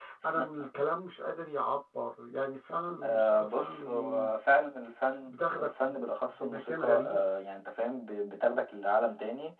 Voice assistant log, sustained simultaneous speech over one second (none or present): present